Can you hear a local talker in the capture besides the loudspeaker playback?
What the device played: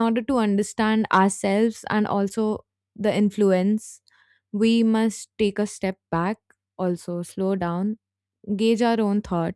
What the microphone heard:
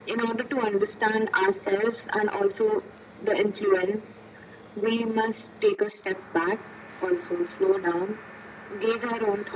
No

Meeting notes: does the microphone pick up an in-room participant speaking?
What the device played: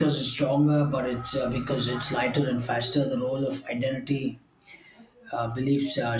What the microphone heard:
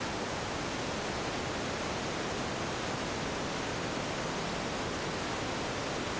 No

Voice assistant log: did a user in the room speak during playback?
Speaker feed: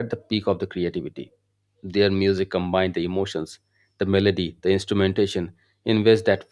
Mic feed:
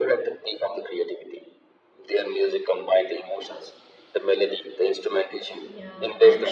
Yes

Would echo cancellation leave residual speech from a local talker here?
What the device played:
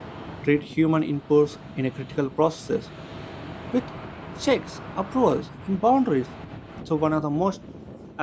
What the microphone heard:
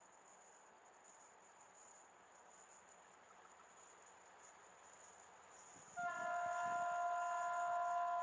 No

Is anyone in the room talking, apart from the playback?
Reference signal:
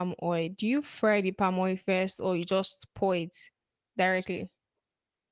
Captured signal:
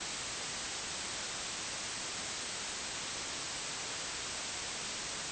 No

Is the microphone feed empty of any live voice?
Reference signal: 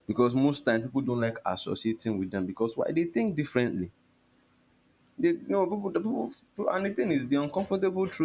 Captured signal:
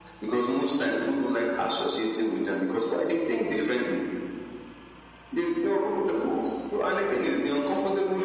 Yes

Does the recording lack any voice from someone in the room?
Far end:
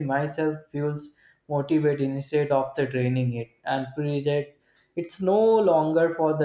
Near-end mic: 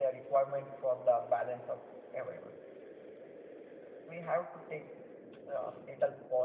No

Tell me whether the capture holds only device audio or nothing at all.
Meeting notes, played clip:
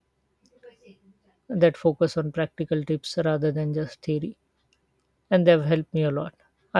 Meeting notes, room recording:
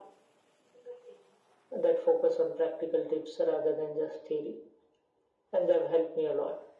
Yes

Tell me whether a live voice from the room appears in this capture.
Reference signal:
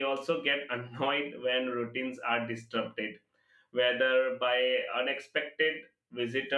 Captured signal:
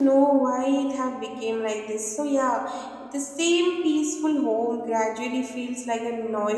Yes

